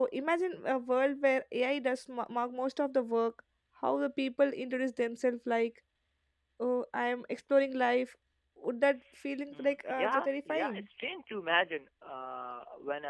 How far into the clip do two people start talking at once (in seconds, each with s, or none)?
9.5 s